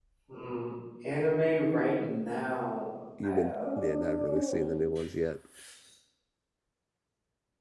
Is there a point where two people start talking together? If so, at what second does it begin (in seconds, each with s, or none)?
3.2 s